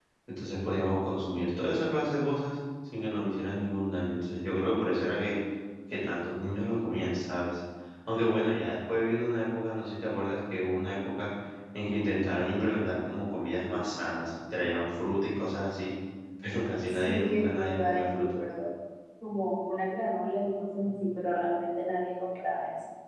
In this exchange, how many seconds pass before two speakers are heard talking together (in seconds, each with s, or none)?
16.9 s